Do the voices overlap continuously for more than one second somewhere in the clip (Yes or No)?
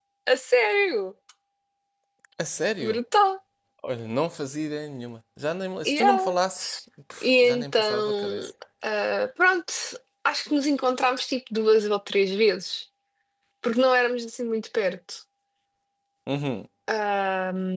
Yes